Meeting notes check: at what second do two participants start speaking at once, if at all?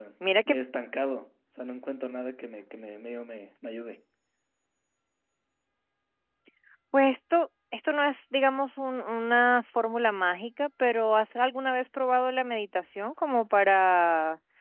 none

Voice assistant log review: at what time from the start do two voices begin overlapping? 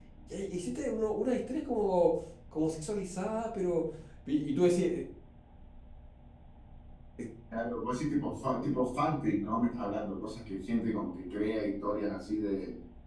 none

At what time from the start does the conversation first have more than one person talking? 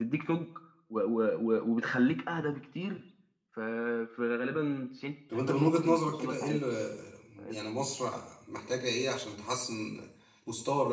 5.3 s

